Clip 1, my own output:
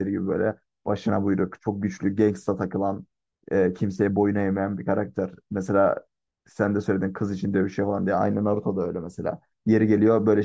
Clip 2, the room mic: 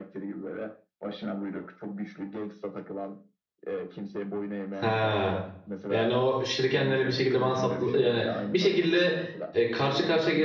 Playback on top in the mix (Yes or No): No